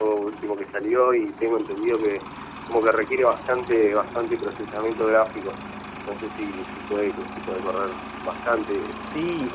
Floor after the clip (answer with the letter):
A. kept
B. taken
B